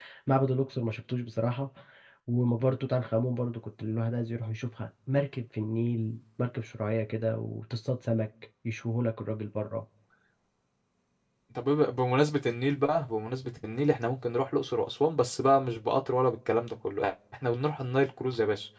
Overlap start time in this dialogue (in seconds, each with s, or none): none